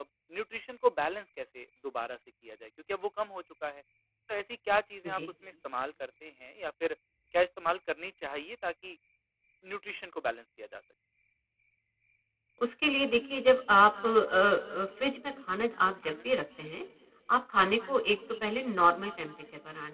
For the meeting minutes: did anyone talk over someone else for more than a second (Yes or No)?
No